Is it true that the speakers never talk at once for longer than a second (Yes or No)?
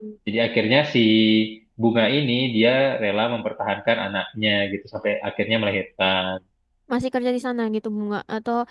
Yes